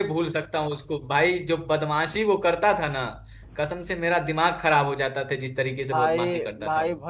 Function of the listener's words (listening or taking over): taking over